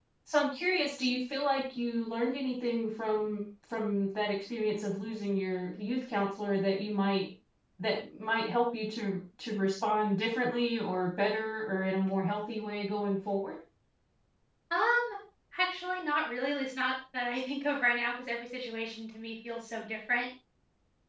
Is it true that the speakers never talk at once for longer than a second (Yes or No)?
Yes